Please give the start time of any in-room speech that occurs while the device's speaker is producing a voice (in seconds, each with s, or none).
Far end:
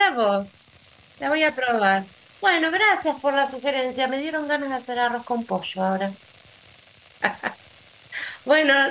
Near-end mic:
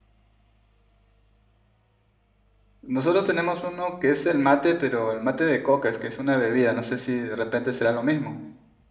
2.8 s